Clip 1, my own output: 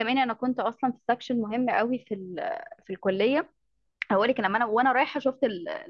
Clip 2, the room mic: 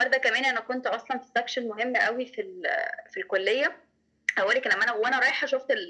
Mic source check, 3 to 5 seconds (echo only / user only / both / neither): echo only